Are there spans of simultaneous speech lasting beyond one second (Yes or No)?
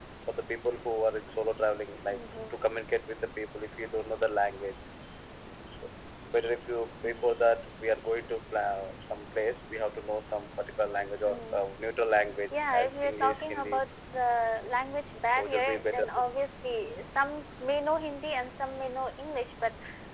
Yes